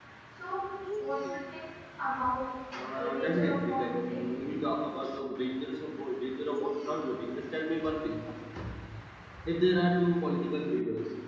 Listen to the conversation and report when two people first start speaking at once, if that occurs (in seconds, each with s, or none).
2.9 s